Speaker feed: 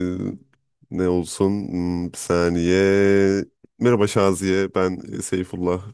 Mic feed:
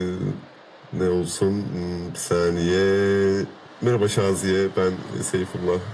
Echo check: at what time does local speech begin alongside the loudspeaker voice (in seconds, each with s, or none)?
none